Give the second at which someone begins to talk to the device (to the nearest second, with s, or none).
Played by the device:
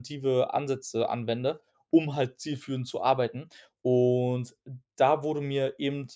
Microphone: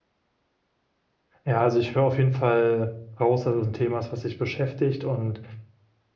1 s